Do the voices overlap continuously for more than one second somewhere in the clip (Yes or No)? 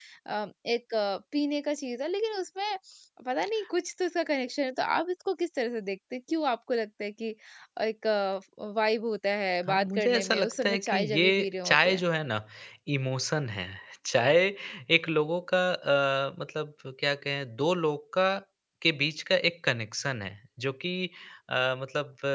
Yes